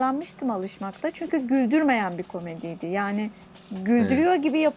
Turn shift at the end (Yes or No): No